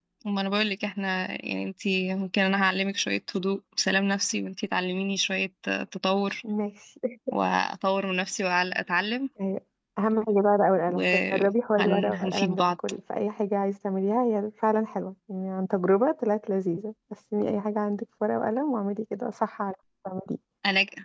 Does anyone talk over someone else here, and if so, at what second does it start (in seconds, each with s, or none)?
10.9 s